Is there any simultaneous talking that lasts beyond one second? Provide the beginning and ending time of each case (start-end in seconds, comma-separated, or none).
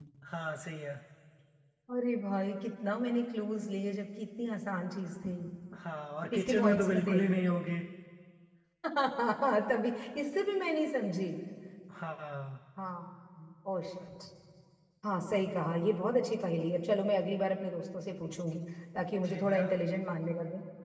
6.4-7.6